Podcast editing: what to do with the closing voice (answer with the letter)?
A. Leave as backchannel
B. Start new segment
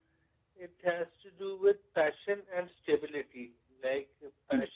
A